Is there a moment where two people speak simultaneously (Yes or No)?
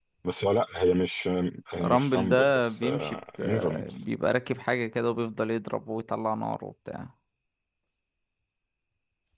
Yes